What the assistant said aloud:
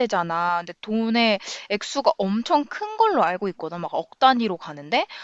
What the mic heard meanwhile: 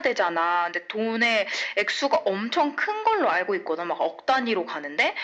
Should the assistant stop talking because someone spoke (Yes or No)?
No